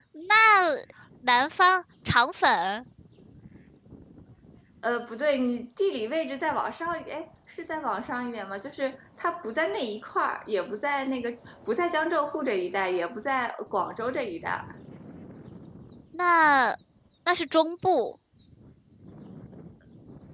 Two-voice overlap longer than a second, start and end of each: none

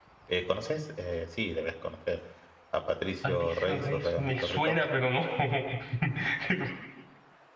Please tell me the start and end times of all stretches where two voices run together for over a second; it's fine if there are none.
3.2-4.9

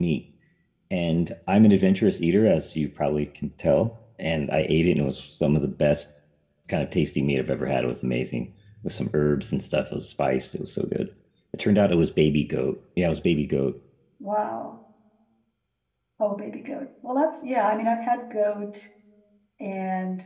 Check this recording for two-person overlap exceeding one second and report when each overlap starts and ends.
none

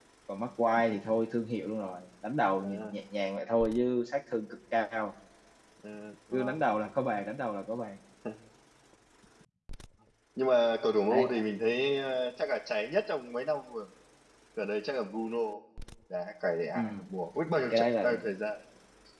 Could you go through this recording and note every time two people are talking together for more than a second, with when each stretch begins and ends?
none

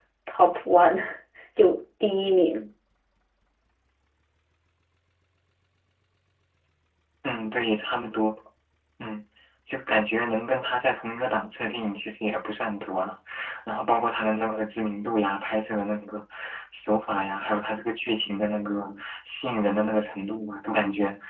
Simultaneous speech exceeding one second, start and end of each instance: none

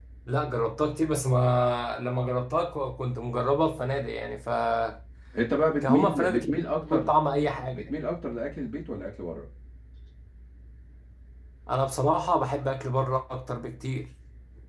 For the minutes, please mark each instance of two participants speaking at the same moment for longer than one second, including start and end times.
5.9-7.1

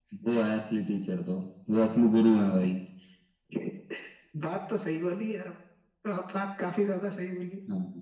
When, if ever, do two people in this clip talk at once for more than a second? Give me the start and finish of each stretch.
none

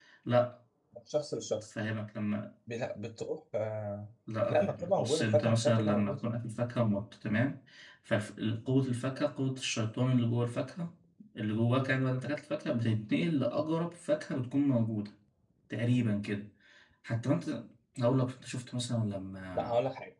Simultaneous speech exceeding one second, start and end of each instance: 4.5-6.2

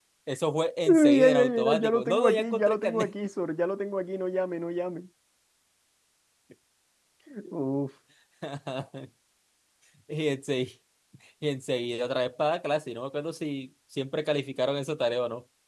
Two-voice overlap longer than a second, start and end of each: 0.8-3.1

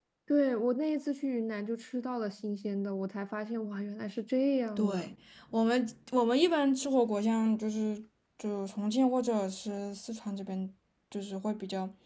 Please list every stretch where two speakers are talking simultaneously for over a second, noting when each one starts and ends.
none

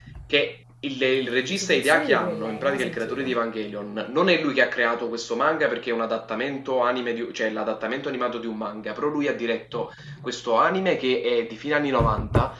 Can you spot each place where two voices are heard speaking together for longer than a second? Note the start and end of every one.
1.5-3.4

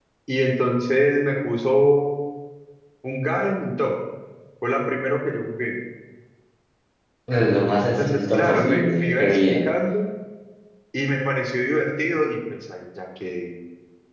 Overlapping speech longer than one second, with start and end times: 7.7-9.6

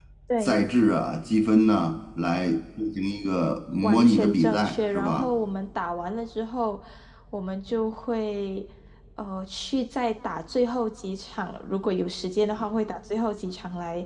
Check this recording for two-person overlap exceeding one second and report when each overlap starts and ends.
3.8-5.3

